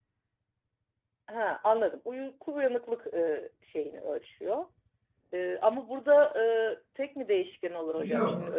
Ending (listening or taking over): taking over